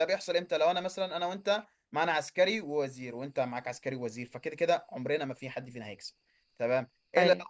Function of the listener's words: listening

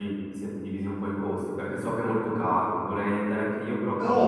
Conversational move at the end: taking over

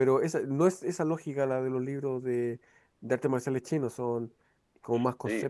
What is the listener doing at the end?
taking over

